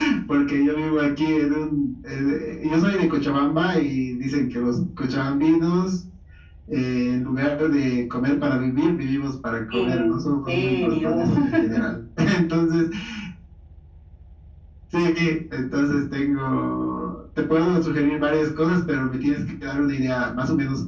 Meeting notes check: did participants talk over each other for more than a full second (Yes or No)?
Yes